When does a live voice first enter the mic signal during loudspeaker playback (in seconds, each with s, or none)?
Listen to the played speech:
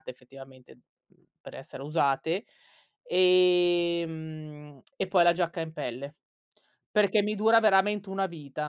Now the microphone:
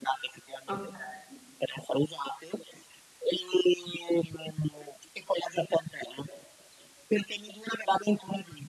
0.7 s